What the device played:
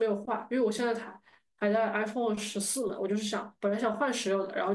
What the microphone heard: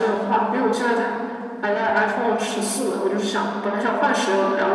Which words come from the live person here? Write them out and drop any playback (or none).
none